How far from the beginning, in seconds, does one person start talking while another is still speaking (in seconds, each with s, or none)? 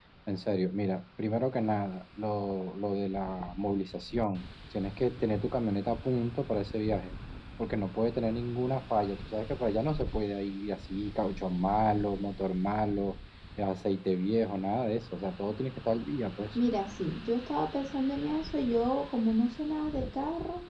none